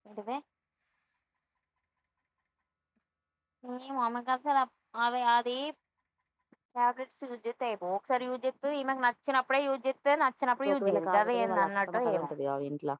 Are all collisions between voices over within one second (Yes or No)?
No